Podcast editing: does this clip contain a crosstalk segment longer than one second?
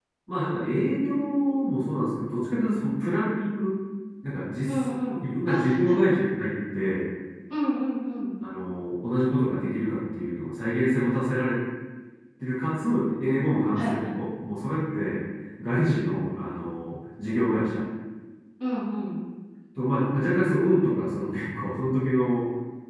Yes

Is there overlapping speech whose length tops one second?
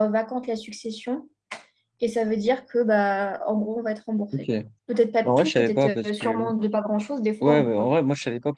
Yes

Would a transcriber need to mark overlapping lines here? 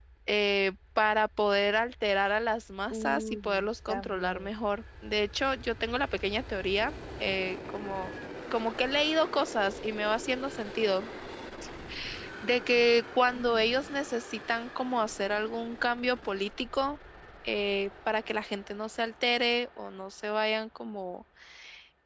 Yes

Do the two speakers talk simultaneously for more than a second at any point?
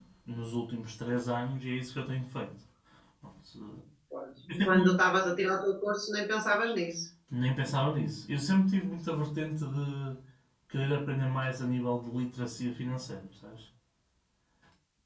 No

